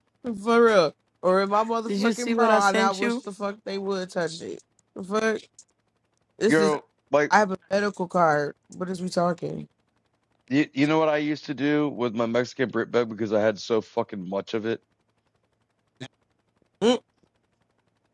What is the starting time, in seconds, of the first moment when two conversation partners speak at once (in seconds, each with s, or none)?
1.9 s